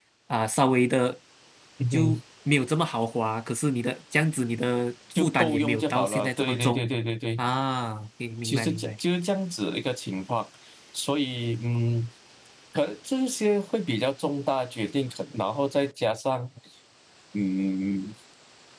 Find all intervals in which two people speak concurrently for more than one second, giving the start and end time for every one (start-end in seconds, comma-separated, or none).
5.2-6.9